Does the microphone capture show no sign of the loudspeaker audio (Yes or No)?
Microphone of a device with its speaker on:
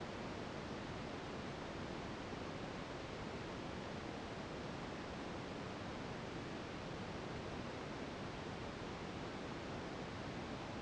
Yes